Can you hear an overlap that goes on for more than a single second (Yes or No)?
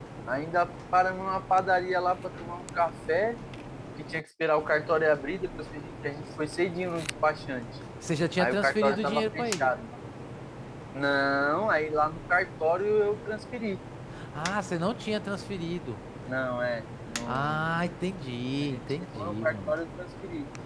Yes